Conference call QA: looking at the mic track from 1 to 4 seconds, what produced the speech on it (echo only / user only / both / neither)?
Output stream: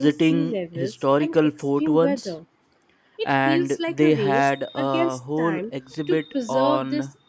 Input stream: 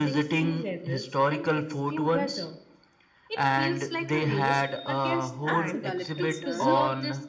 echo only